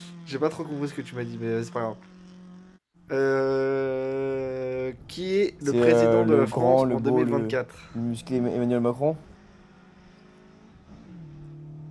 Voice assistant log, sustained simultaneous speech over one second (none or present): present